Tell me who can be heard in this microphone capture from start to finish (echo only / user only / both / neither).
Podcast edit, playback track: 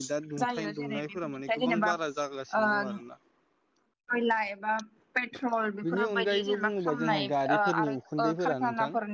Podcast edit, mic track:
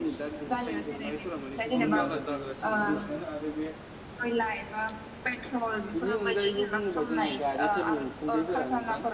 both